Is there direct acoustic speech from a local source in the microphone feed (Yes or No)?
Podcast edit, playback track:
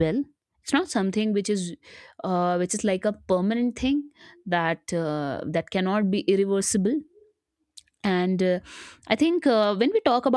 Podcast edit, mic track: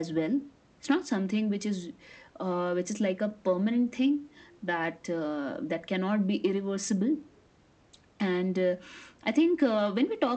No